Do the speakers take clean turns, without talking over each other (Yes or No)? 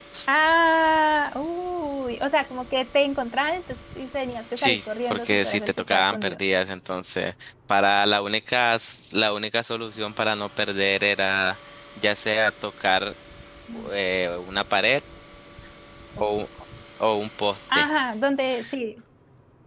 No